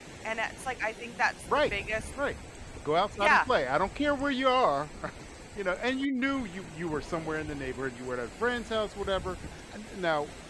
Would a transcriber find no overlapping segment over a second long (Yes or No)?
Yes